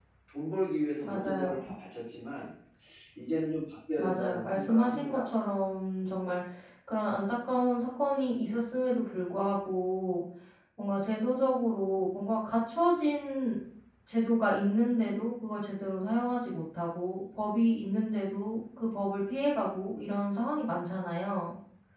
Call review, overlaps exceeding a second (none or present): present